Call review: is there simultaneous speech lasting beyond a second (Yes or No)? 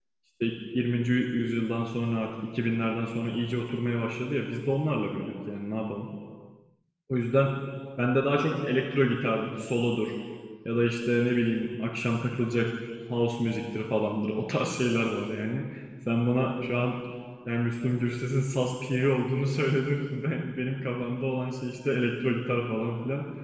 No